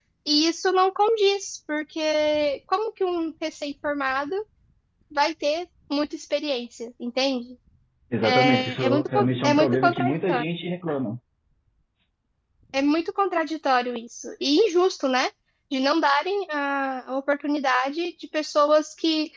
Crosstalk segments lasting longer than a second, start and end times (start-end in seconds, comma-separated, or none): 8.2-10.4